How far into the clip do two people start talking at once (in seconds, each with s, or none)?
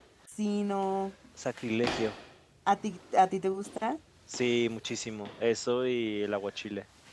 none